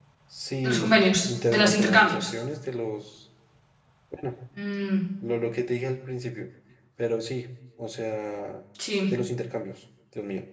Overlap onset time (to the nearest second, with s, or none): 1 s